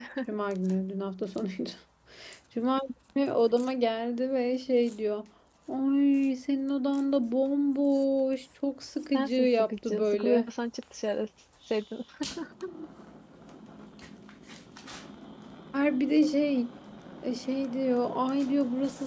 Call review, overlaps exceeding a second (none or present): present